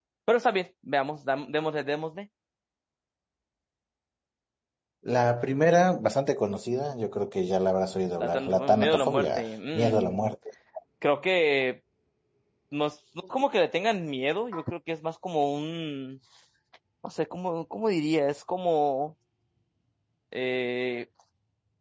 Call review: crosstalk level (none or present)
present